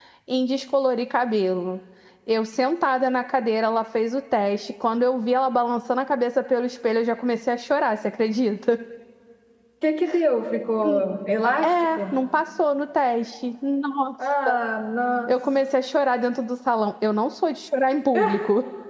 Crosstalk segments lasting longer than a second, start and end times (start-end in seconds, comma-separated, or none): none